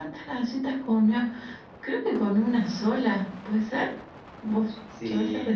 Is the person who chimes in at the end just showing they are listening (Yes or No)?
No